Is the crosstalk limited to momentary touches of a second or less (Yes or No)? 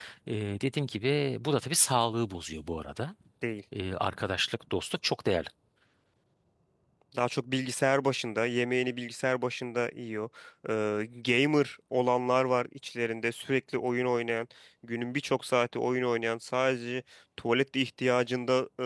Yes